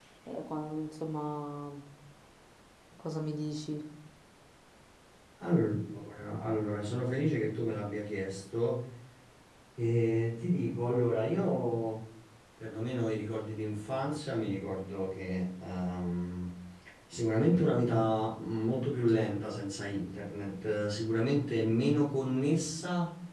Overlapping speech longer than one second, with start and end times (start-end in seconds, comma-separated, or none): none